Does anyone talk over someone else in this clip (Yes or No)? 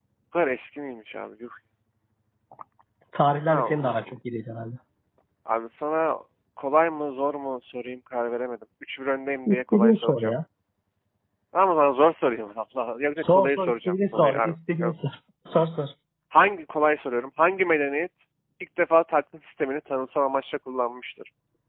Yes